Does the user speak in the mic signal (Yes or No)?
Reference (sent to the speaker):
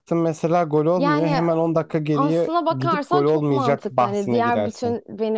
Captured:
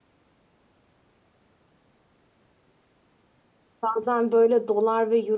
Yes